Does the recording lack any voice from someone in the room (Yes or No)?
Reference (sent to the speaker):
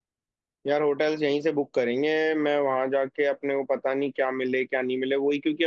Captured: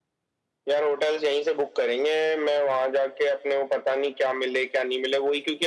Yes